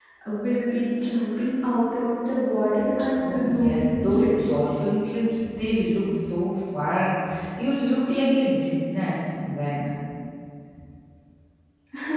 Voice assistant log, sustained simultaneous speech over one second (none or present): present